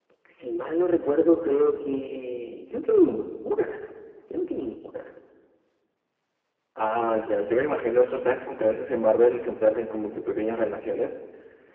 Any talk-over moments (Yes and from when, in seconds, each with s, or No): No